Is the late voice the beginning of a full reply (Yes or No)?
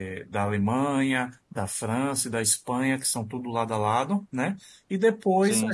No